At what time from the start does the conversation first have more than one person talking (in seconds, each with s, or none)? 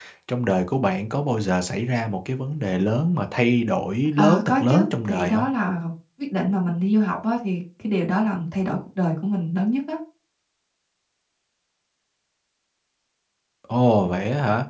4.2 s